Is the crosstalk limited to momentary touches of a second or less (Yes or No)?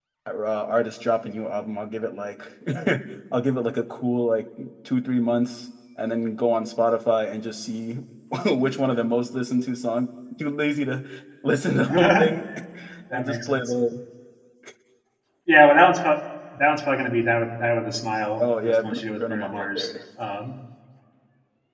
No